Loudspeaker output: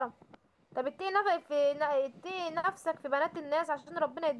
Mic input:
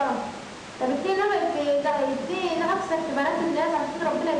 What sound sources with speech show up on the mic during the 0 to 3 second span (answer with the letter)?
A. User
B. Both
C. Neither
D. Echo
D